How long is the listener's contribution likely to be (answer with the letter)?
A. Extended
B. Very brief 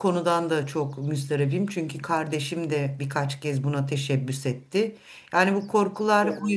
B